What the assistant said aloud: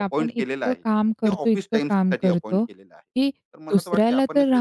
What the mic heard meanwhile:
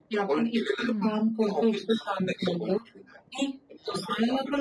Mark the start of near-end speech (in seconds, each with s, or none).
0.8 s